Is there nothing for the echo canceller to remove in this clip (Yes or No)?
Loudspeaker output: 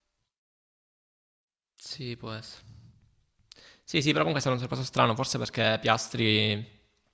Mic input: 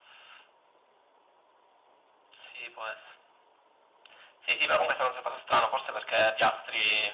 No